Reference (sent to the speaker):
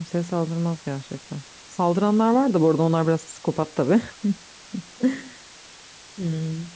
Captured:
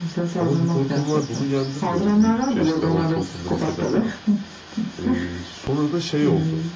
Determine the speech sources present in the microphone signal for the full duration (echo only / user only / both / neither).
both